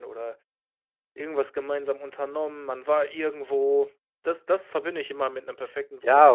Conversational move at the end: taking over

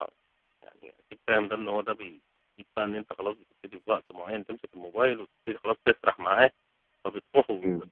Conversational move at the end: listening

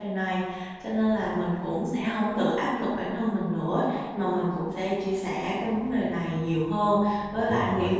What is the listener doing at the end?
listening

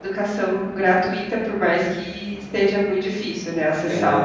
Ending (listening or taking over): taking over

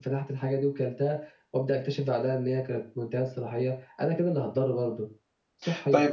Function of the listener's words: taking over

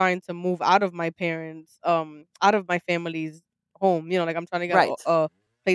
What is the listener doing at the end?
listening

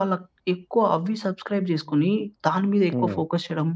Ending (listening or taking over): listening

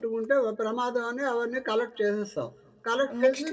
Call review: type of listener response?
listening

